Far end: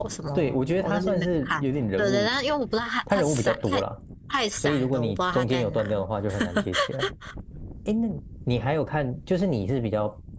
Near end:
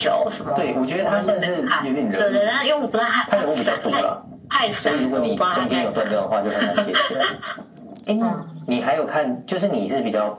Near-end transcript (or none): 嗯